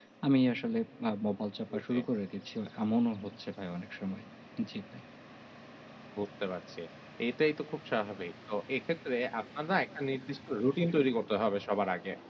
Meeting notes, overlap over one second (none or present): none